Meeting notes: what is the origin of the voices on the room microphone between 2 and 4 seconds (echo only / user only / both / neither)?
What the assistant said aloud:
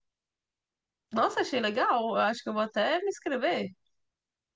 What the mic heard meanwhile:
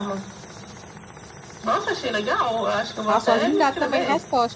both